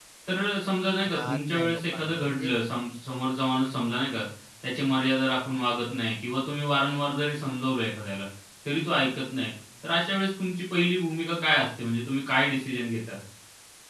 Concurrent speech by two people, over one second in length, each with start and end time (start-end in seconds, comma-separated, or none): 1.1-2.5